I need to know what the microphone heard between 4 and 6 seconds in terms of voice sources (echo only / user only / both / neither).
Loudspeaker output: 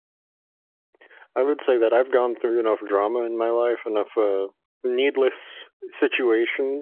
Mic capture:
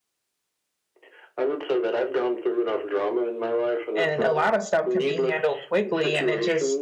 both